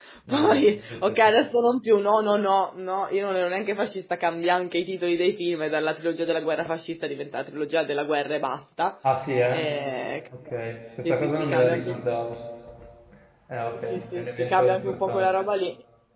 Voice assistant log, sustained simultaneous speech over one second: present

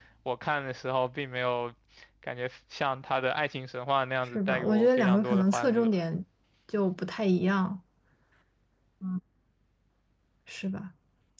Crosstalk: present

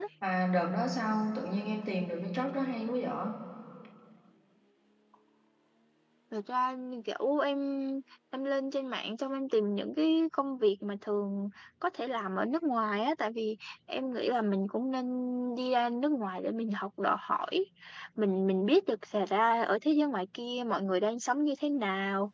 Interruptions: none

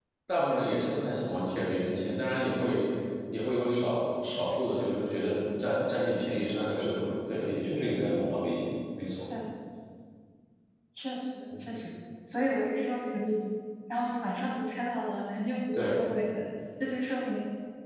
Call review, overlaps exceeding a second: none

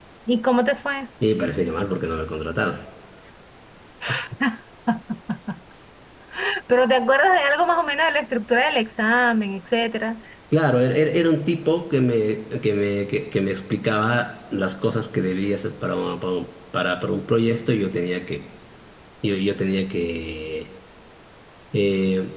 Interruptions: none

